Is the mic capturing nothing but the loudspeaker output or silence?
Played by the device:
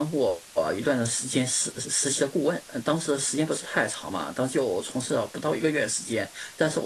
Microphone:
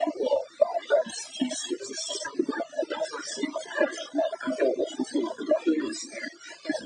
Yes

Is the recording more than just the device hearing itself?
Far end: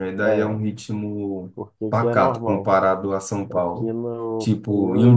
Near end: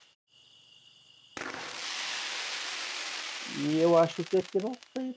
Yes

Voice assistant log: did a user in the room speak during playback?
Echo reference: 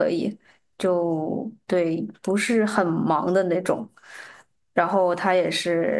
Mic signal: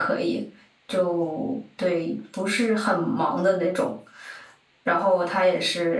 No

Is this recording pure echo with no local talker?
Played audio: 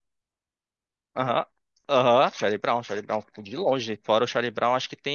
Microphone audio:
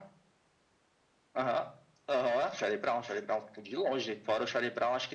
Yes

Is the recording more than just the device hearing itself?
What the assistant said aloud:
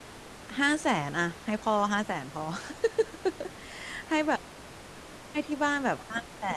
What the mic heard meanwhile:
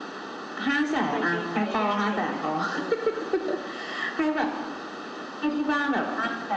Yes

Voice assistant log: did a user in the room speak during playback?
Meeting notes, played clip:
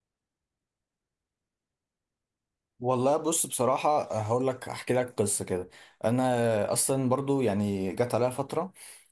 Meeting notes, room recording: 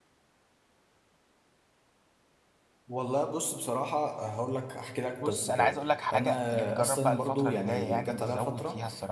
Yes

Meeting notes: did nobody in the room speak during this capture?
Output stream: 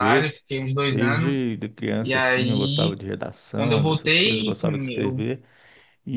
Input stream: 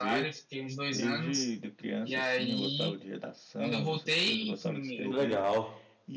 No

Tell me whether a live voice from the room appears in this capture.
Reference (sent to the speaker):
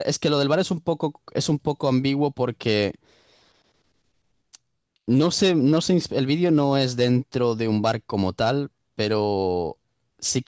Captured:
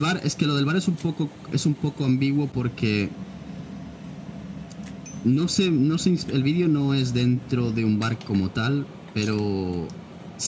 No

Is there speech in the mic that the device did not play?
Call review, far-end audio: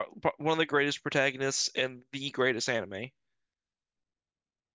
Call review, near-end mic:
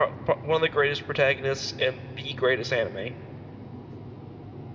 No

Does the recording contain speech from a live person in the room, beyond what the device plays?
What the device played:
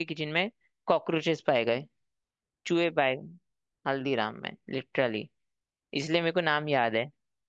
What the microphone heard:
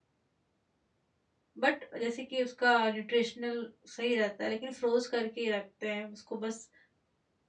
Yes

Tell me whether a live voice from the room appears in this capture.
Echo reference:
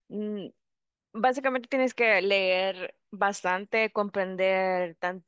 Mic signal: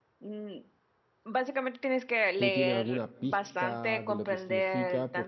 Yes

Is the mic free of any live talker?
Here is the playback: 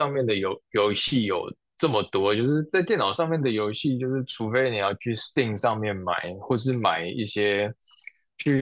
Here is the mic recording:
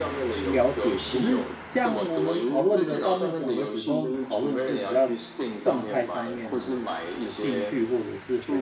No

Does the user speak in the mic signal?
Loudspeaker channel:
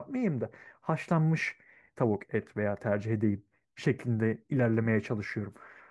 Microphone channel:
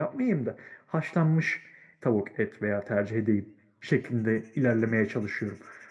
No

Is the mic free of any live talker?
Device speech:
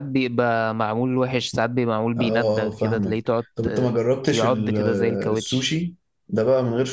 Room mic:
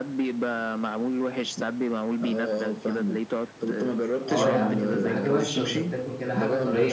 No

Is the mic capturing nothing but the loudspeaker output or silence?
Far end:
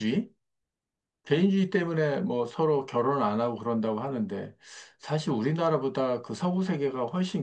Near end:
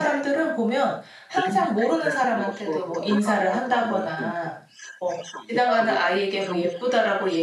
No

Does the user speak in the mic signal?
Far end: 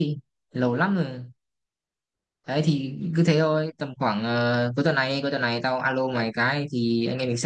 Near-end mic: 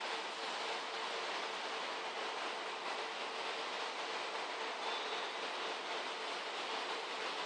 No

